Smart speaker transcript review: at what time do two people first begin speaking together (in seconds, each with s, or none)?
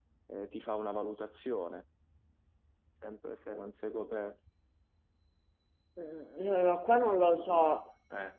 none